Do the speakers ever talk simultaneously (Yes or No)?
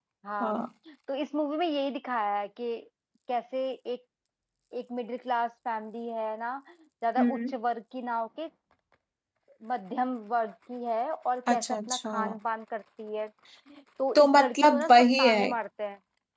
Yes